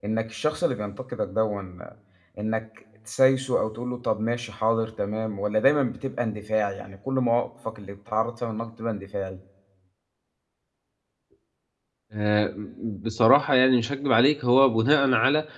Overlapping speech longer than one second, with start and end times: none

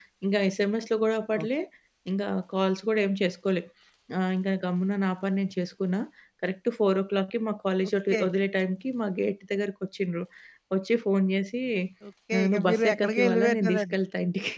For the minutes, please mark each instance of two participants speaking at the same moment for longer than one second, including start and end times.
12.4-13.9

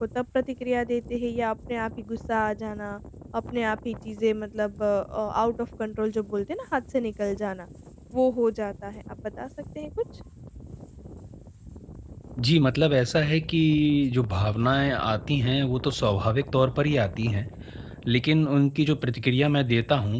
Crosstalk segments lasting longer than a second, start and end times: none

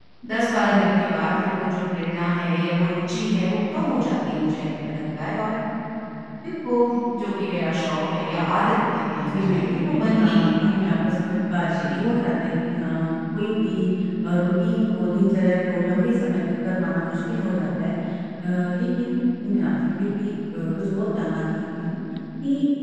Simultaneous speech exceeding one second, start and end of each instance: 9.3-10.9

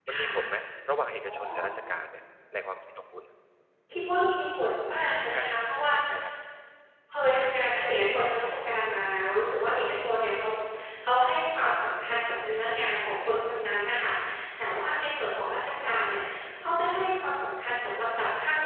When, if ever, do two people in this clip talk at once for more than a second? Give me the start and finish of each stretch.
none

